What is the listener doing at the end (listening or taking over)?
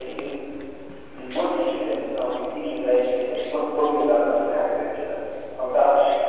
listening